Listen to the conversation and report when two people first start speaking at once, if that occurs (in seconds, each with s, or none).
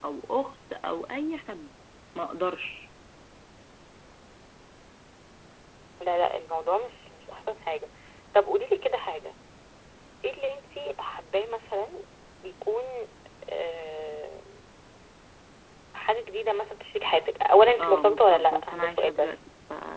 17.8 s